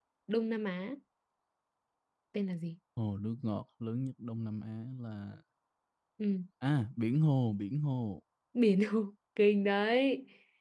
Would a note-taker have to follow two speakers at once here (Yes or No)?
No